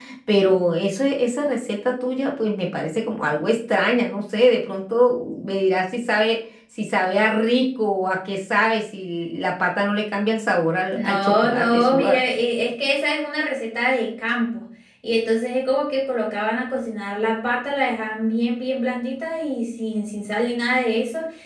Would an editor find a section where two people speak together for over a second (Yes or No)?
Yes